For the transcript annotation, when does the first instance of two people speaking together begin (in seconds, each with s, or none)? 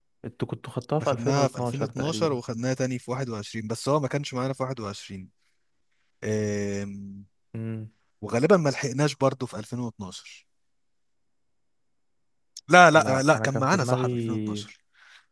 1.0 s